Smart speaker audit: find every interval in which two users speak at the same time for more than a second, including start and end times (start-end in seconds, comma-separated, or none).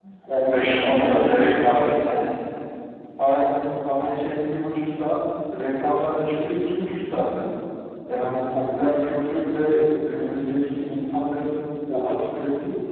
0.6-1.9